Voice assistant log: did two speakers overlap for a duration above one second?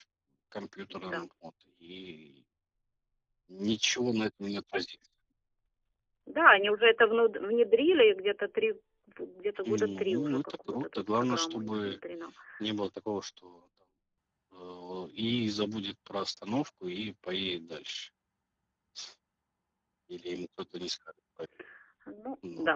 Yes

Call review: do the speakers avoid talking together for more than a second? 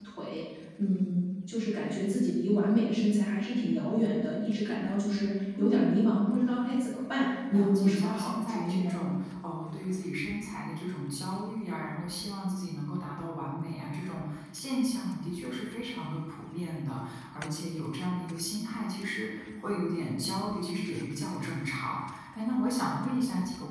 No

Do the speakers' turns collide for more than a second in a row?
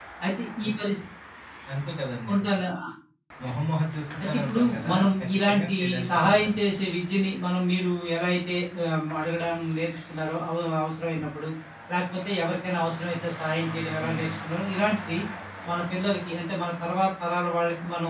Yes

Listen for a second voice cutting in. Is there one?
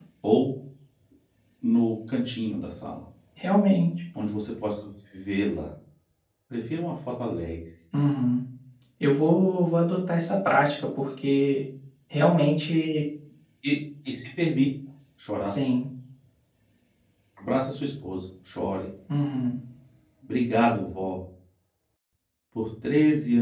No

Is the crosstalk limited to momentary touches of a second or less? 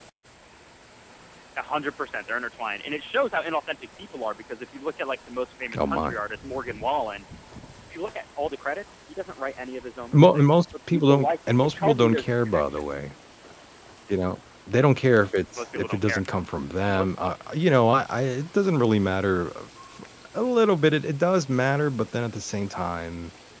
No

